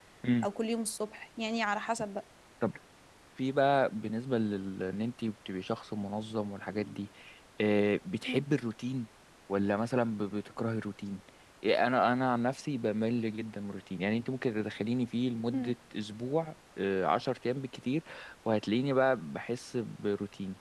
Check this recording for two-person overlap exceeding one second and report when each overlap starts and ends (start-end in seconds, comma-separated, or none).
none